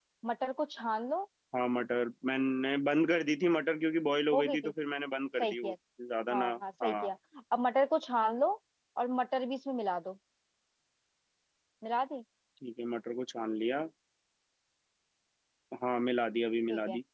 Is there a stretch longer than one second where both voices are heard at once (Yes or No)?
No